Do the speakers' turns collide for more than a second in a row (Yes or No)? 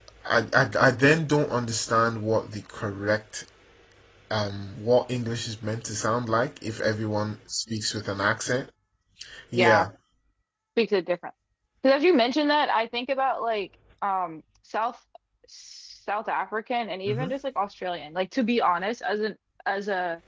No